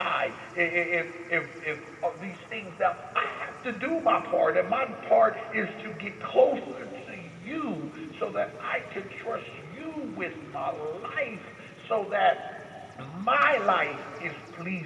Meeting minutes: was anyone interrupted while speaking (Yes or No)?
No